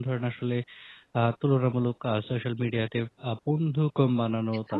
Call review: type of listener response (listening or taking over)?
listening